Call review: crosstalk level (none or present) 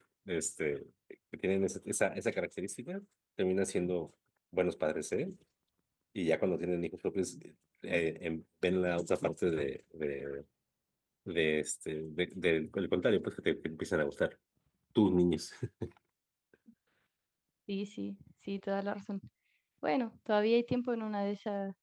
none